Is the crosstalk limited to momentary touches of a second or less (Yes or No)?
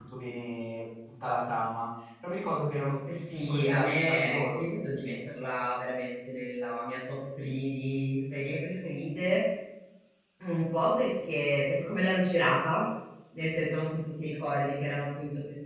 No